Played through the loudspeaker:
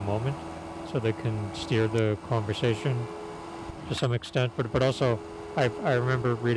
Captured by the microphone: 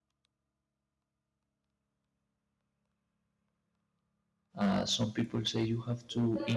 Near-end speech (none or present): present